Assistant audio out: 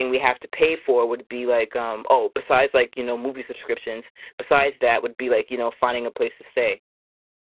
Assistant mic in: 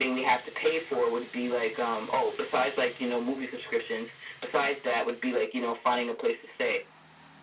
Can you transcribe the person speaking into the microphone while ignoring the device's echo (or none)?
none